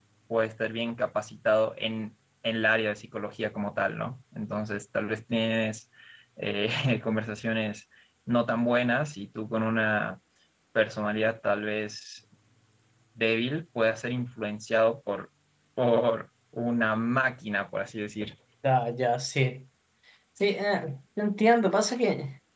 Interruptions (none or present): none